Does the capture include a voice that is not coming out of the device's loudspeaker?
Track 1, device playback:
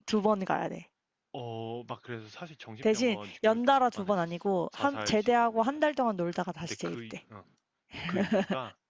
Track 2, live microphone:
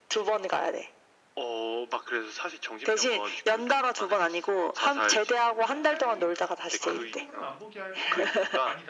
Yes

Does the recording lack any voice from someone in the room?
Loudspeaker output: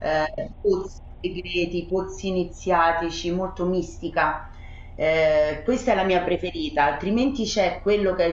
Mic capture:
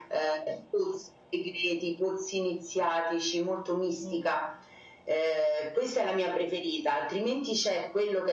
No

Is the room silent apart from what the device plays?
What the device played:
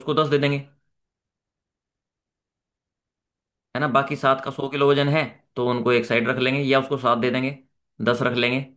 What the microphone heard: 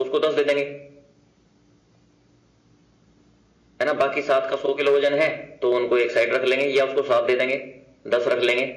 Yes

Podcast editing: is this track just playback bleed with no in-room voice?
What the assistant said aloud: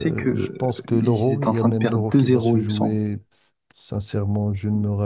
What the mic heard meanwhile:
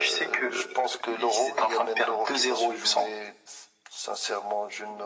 Yes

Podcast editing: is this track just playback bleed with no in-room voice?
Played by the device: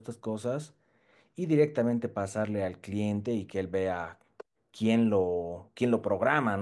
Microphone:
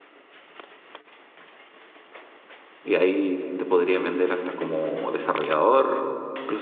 No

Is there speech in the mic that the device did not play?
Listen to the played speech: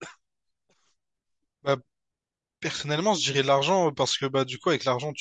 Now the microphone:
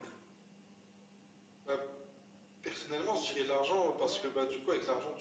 Yes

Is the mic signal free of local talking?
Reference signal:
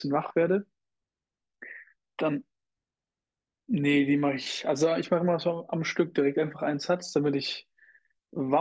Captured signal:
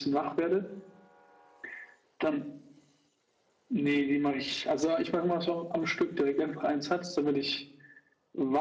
Yes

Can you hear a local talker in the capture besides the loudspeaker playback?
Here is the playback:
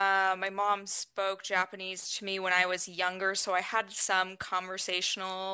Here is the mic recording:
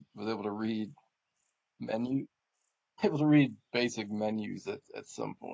Yes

